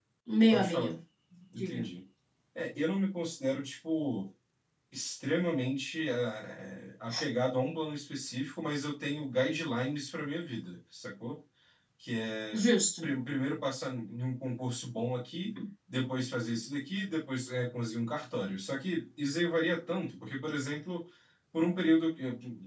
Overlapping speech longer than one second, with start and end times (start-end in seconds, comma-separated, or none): none